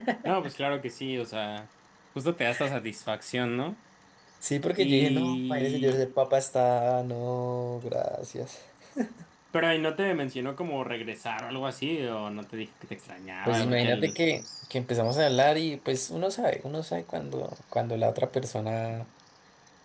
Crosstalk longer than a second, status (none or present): present